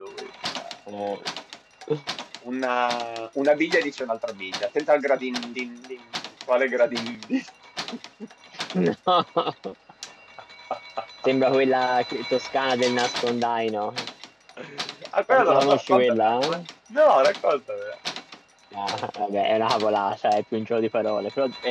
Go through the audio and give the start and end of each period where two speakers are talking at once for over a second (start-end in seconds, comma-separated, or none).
15.3-16.6